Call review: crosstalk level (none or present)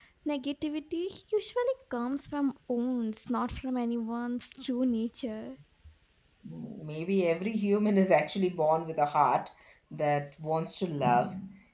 none